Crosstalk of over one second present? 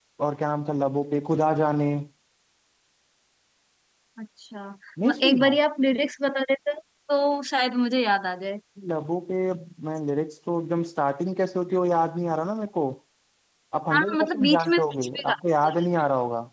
Yes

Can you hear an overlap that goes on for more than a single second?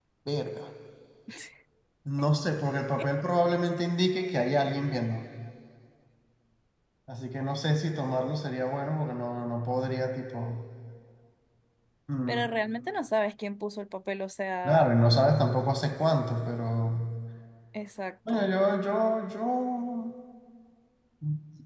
No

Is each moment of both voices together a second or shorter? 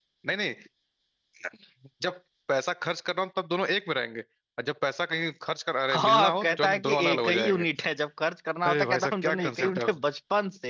No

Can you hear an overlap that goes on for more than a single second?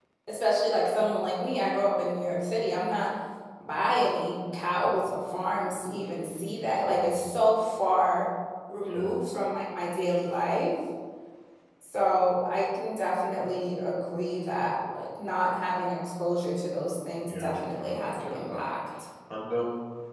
Yes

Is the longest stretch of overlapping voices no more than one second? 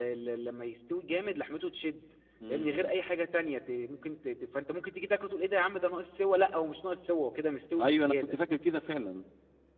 Yes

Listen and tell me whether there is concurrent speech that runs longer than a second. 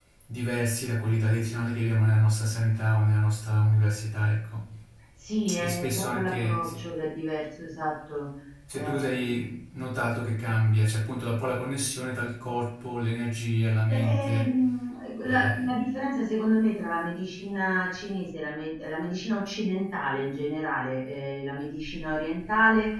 Yes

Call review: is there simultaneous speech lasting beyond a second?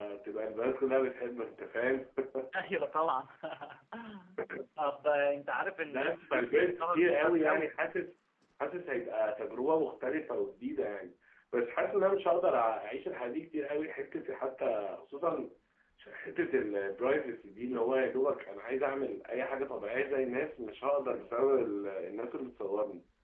Yes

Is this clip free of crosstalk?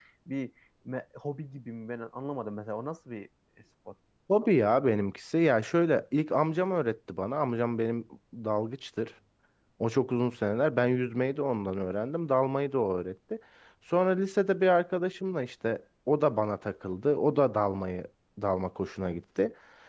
Yes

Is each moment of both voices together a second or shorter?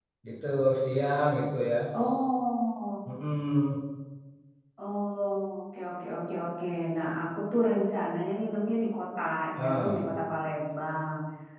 Yes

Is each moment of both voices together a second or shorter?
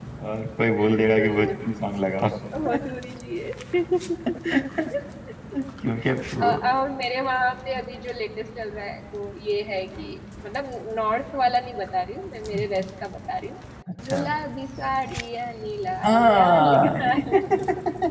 No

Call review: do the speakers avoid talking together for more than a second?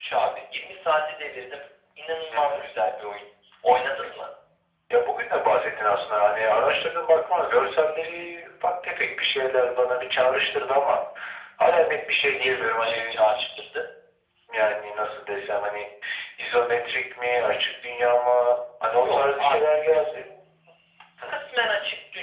No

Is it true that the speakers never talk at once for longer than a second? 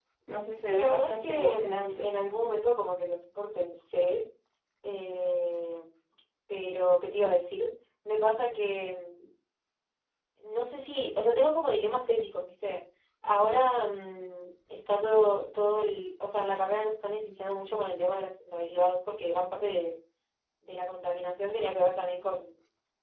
No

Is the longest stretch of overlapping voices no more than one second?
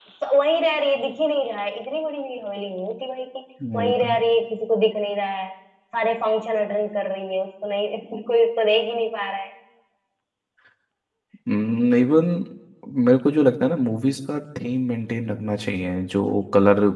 Yes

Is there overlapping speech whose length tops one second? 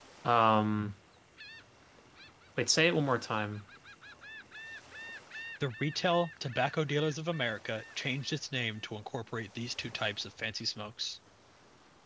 No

